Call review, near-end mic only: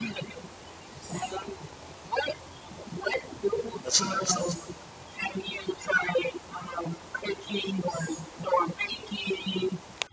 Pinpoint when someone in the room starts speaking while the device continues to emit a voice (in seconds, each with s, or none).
3.8 s